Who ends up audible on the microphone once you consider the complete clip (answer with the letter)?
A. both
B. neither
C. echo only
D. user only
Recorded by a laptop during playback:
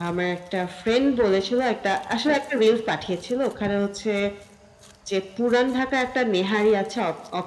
C